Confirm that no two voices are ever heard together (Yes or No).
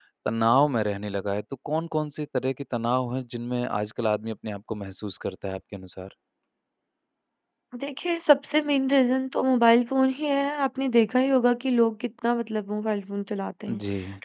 Yes